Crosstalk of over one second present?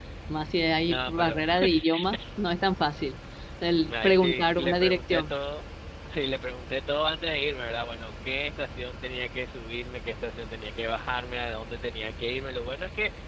Yes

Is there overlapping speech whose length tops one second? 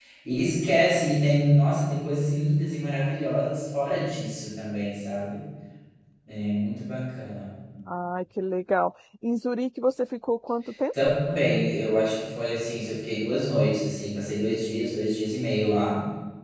No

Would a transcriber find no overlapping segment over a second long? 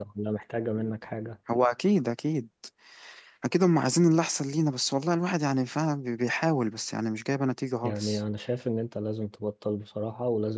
Yes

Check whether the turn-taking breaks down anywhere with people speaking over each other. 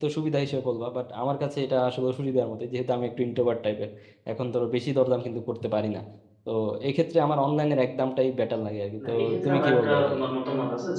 Yes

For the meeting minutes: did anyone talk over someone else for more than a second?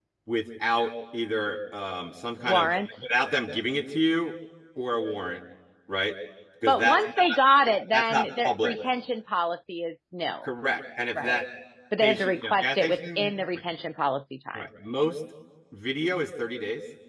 Yes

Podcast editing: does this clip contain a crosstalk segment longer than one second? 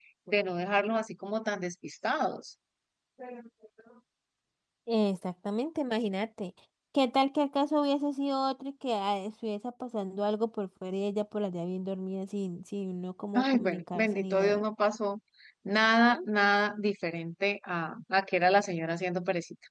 Yes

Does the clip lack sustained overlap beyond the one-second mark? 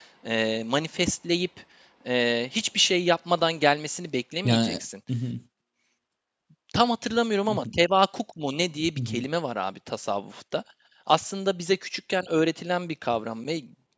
Yes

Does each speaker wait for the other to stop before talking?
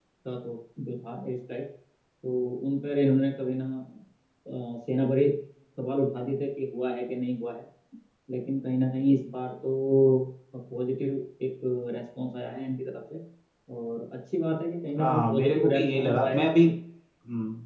No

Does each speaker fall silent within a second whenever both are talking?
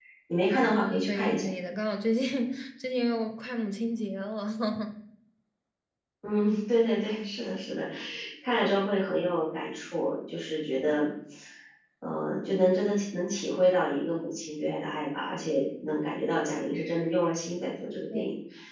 Yes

